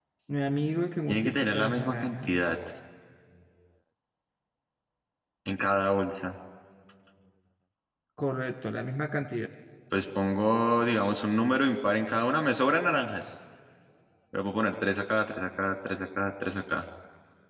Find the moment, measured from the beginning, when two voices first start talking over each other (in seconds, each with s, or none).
1.1 s